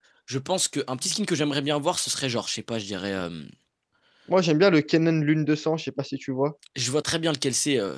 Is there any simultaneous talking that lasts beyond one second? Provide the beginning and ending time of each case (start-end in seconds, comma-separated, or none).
none